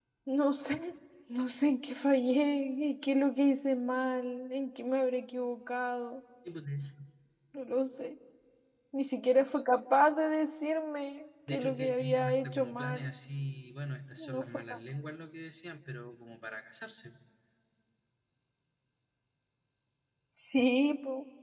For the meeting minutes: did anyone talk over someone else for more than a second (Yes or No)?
Yes